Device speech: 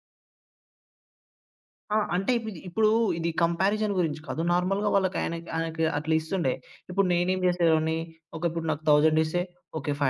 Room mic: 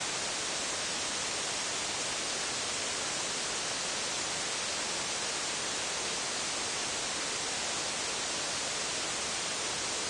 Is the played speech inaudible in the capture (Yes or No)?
Yes